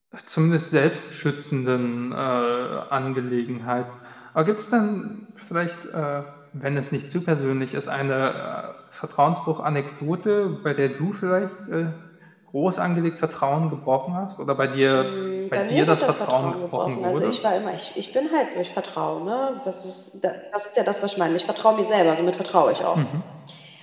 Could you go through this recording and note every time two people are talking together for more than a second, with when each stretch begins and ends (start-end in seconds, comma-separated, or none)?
15.6-17.4